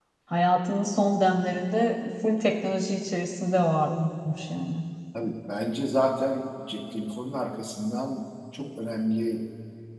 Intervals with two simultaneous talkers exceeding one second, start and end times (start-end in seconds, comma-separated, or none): none